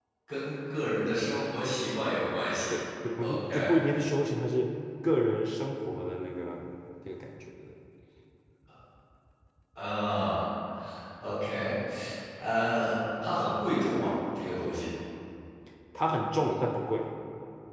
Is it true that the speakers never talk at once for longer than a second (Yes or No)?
Yes